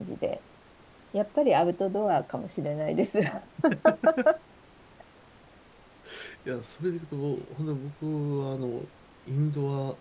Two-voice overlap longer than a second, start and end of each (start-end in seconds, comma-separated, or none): none